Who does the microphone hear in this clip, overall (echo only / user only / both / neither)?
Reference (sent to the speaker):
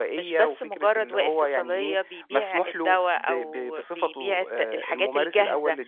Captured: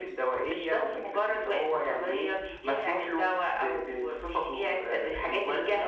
echo only